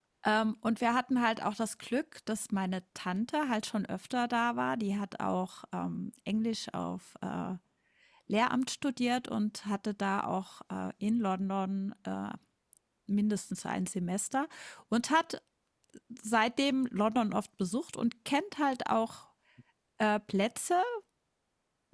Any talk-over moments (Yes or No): No